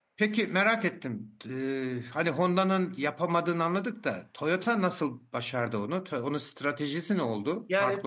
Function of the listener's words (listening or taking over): taking over